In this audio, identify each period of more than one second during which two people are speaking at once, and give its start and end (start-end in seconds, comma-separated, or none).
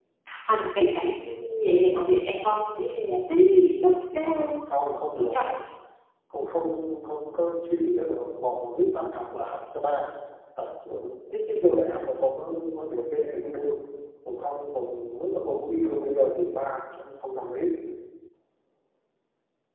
none